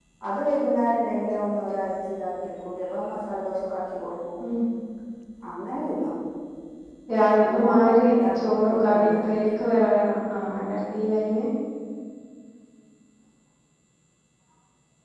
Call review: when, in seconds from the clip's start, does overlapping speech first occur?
7.4 s

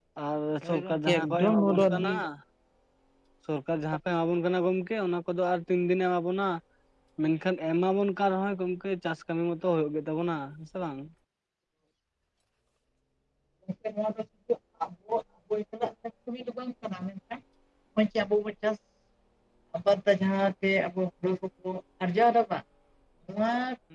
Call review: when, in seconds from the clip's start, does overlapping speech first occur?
0.6 s

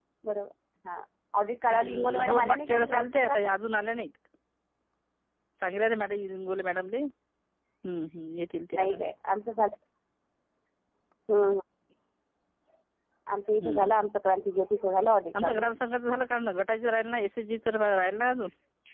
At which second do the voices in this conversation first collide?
1.6 s

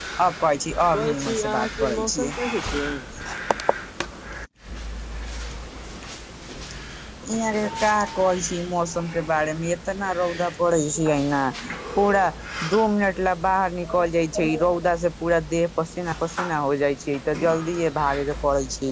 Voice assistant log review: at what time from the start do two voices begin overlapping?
0.9 s

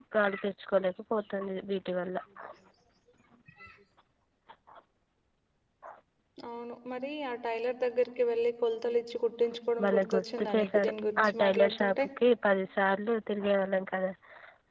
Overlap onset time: 9.8 s

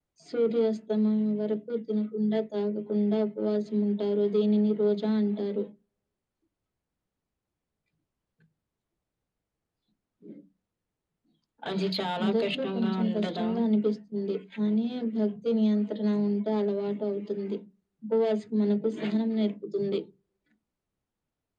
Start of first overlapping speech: 12.2 s

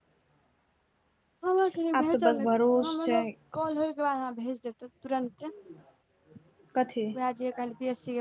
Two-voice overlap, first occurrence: 1.9 s

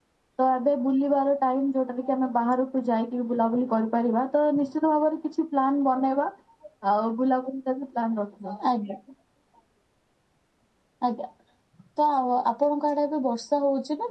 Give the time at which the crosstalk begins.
none

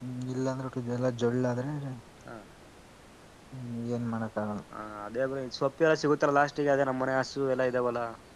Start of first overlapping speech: none

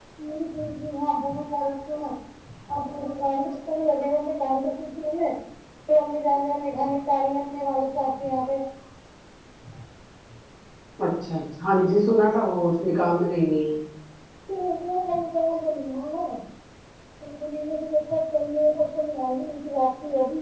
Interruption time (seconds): none

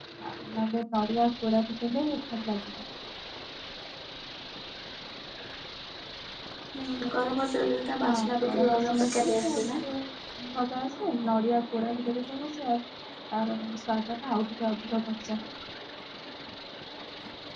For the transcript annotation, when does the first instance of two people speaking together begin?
8.1 s

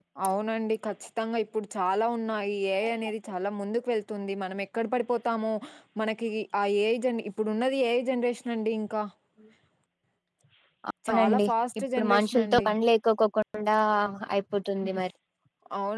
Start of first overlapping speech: 11.1 s

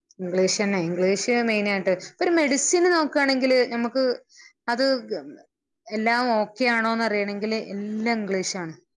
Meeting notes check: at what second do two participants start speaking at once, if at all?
none

